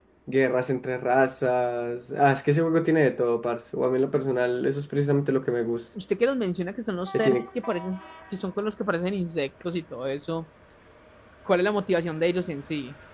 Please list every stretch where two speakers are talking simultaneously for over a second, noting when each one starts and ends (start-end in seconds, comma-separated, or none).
none